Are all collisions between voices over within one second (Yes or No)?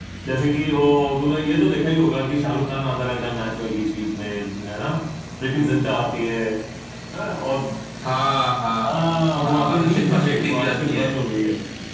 No